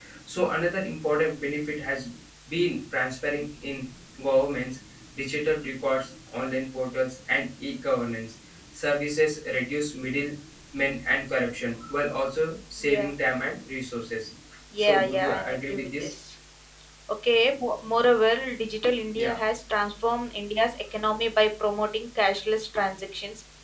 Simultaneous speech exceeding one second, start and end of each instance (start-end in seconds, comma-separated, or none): 14.8-16.1